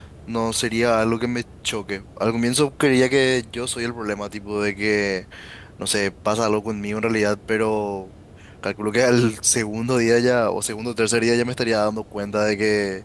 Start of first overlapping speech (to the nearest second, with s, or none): none